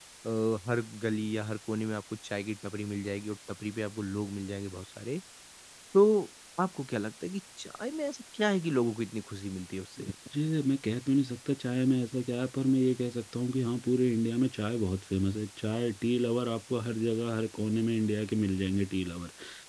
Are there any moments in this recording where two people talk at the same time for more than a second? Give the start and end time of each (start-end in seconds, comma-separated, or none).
none